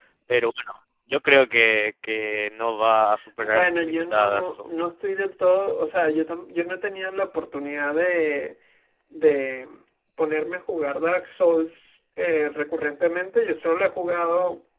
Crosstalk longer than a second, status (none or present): present